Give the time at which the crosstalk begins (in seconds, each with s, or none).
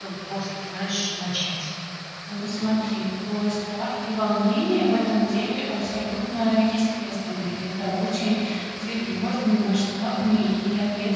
none